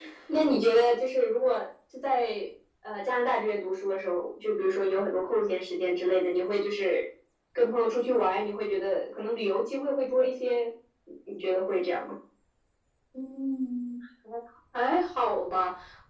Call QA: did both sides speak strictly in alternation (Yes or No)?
Yes